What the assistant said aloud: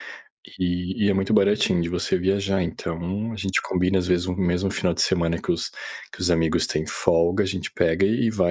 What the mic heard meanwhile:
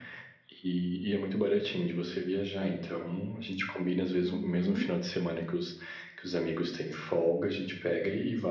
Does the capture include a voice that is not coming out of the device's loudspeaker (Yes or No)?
Yes